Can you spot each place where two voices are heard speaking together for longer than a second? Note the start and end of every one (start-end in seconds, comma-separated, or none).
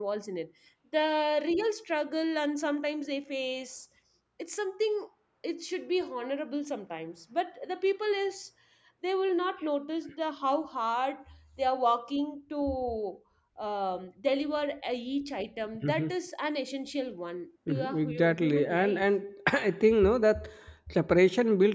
17.7-19.1